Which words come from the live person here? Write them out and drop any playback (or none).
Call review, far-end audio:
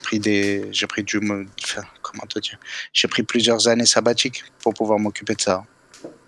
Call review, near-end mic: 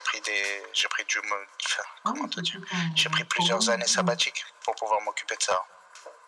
Ah oui, c'est tout un programme, oui.